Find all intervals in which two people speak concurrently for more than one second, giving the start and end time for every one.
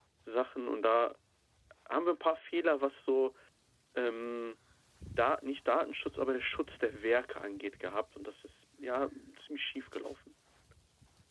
none

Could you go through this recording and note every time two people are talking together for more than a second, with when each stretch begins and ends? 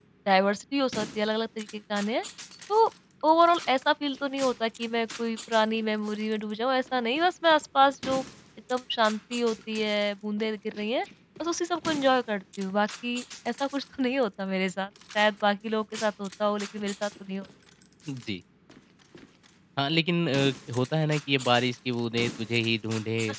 none

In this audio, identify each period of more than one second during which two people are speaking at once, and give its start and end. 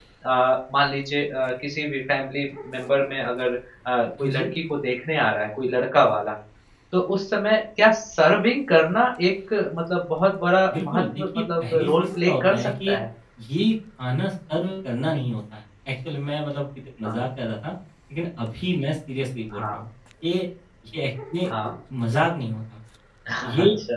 10.7-13.0

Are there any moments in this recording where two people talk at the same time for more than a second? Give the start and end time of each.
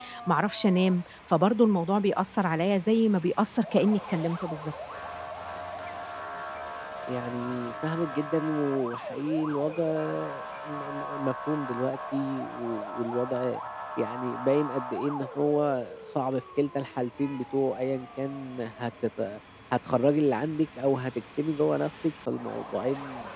none

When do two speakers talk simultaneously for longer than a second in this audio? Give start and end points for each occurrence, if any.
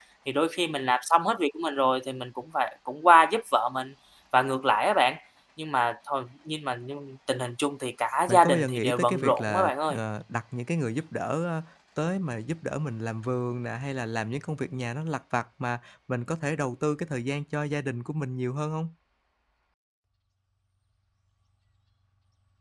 8.3-10.0

